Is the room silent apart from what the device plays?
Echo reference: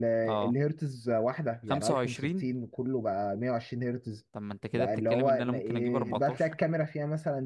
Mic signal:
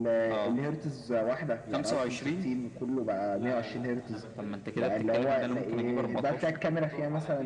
No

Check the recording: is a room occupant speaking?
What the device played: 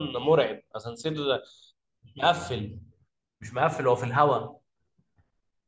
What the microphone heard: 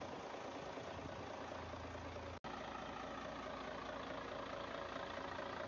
No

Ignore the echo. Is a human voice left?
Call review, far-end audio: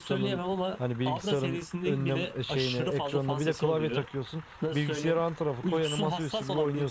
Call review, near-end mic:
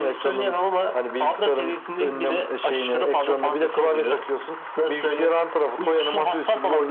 No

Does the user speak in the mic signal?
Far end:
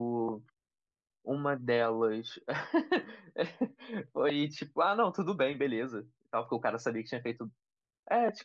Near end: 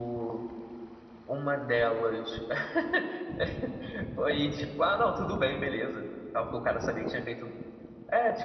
No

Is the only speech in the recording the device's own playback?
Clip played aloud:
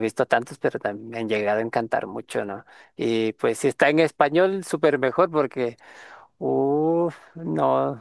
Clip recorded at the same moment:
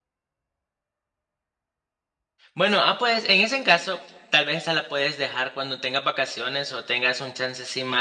No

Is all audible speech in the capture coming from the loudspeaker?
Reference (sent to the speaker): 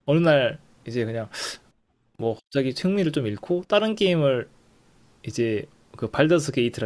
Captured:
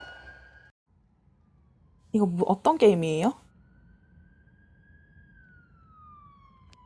No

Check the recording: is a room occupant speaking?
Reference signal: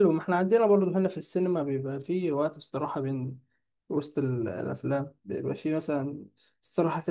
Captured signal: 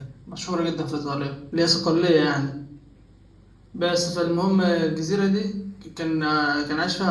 Yes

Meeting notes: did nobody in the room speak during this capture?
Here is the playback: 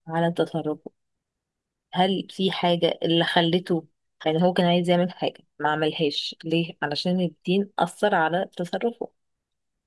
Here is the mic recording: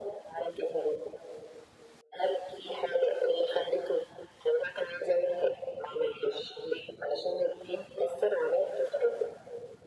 Yes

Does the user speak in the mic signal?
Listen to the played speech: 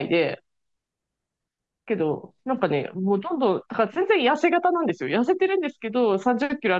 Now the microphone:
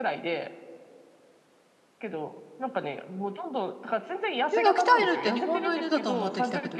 Yes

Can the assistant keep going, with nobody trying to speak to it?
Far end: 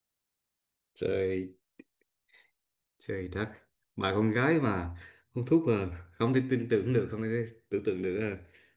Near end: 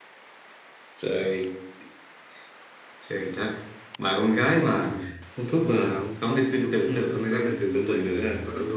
No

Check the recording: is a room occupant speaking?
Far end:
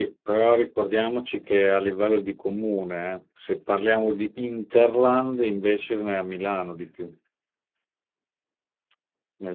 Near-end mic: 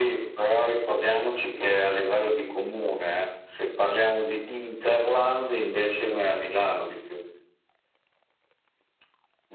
No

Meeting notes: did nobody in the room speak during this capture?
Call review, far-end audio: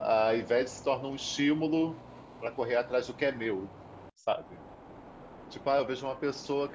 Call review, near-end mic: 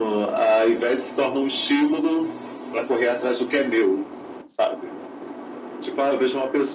Yes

